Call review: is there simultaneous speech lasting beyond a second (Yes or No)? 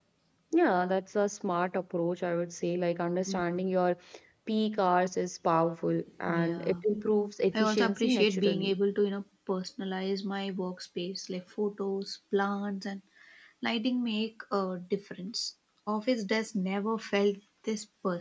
Yes